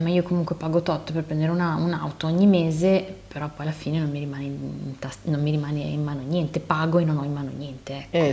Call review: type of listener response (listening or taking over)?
taking over